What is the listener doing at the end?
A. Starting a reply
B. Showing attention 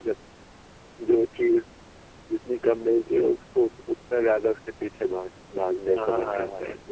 A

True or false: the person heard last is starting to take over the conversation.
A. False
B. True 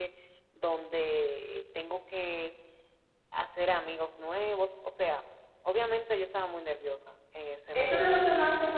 B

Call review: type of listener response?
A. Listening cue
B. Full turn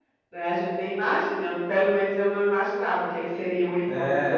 B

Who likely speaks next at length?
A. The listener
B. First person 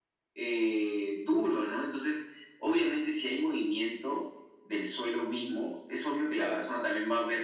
B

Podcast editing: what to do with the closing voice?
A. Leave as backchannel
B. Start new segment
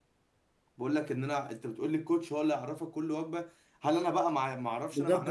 B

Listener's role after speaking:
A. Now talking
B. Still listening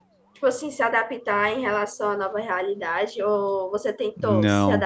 A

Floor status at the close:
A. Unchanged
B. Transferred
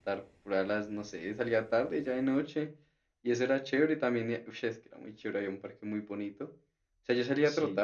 A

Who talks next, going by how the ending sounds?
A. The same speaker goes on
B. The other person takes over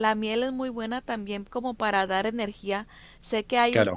B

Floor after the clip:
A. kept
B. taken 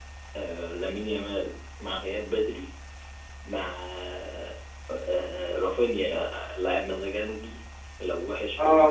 B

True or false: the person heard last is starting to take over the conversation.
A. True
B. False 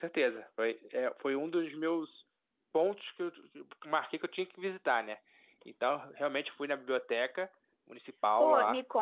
A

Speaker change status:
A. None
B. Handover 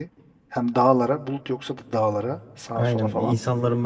B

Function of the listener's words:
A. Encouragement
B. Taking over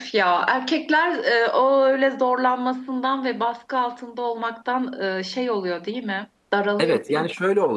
B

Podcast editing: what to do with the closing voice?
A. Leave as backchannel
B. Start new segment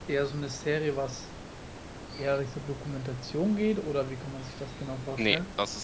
B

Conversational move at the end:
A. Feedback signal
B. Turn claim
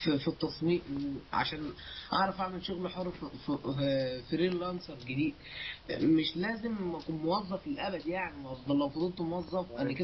A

